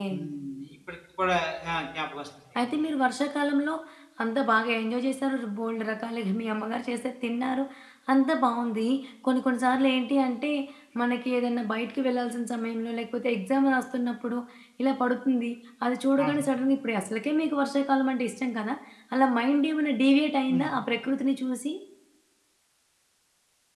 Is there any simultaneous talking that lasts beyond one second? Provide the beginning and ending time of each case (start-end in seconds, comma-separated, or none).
none